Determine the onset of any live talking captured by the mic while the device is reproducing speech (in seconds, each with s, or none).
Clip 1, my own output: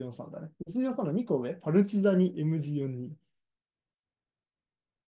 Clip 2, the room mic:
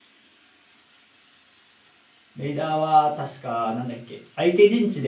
2.3 s